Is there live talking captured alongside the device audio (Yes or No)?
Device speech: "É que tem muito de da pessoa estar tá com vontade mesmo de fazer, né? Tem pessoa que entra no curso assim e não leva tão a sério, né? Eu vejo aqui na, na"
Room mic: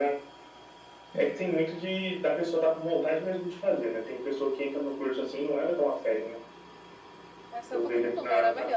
Yes